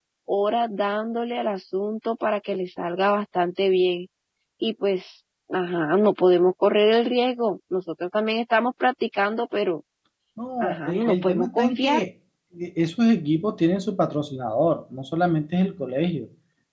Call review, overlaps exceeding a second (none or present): present